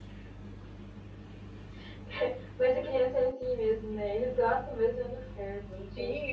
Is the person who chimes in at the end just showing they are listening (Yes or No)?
No